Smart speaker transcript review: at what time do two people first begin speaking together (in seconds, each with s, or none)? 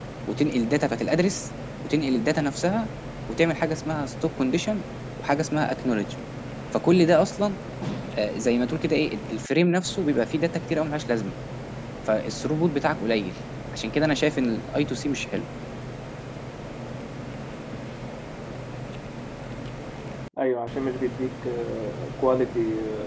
none